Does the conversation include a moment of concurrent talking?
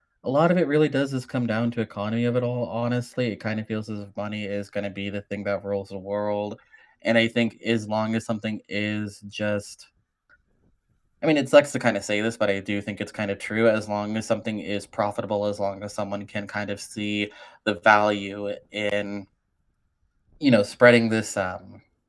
No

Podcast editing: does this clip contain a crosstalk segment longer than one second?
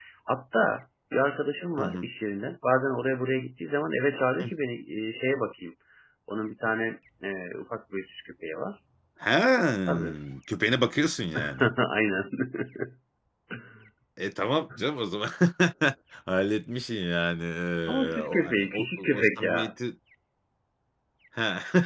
Yes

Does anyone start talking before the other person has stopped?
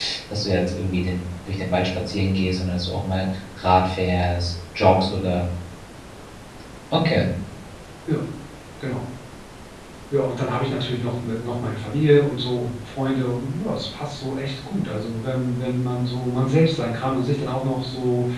No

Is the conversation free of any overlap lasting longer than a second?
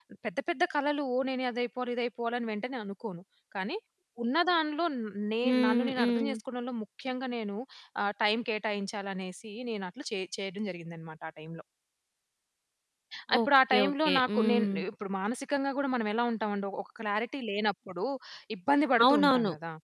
No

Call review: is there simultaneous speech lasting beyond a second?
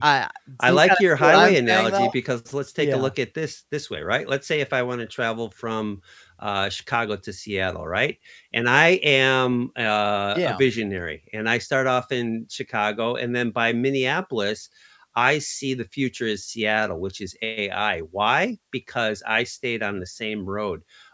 Yes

